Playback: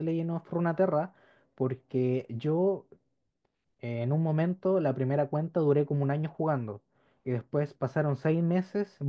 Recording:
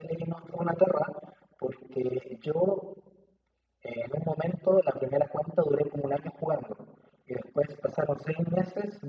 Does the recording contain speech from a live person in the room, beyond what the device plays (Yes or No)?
No